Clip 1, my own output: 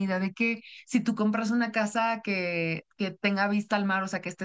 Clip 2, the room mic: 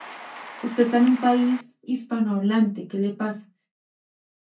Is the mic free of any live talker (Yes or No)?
No